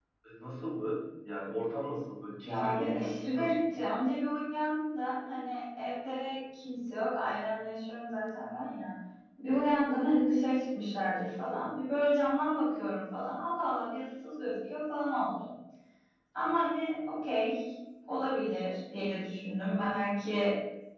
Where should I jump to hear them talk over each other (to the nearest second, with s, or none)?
2 s